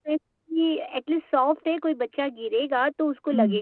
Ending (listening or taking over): taking over